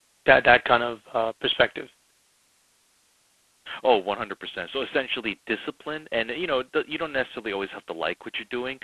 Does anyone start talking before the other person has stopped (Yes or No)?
No